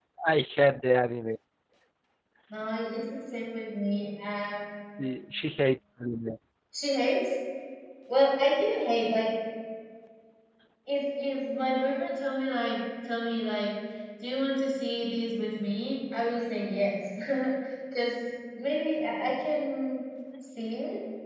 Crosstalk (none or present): none